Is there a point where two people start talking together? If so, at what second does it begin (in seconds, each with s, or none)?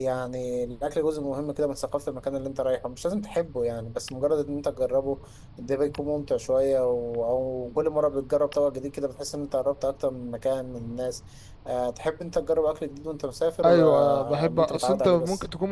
13.6 s